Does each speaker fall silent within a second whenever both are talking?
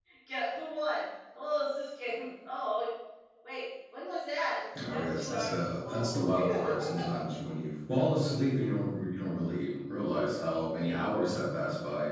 No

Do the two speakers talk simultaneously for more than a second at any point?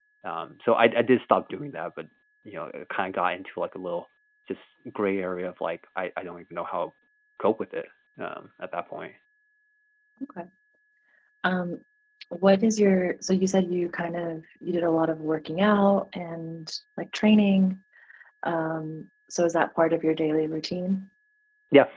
No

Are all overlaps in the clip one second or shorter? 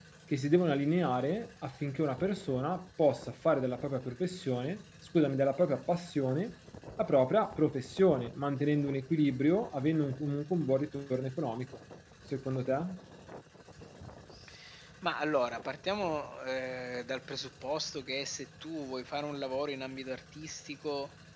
Yes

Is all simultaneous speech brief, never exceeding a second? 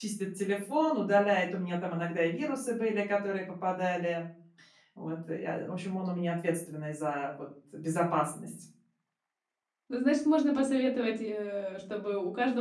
Yes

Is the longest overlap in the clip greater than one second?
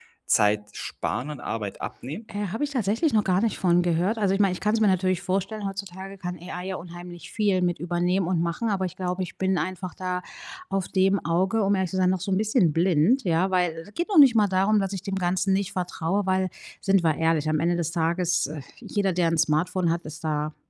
No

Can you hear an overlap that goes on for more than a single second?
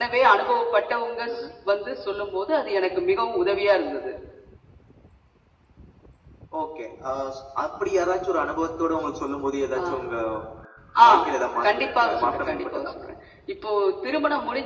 Yes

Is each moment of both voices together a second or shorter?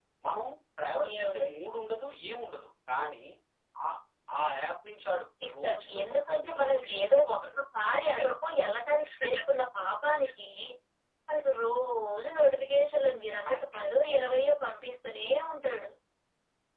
No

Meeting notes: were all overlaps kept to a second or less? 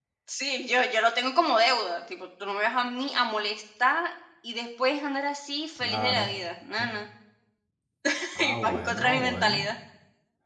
No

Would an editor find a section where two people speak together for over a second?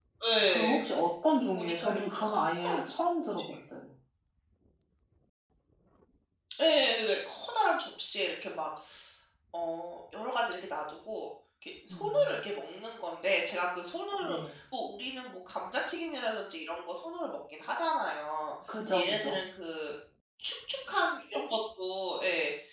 Yes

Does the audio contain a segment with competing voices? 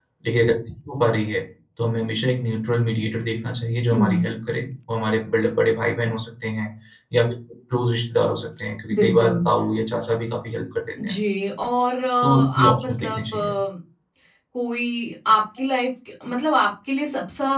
Yes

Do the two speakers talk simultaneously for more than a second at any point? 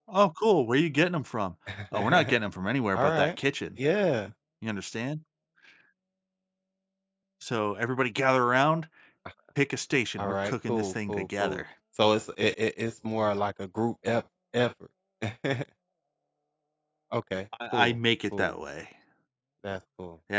Yes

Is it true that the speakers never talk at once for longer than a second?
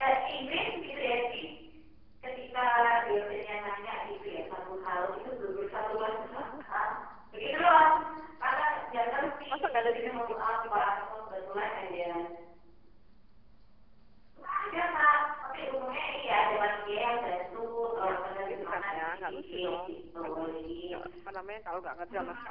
No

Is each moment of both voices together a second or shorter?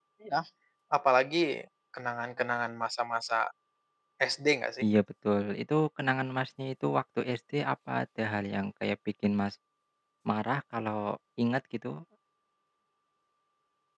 Yes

